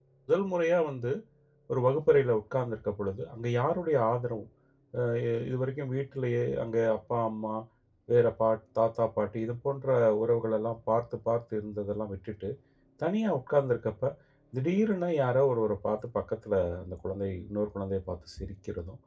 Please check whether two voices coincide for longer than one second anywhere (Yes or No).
No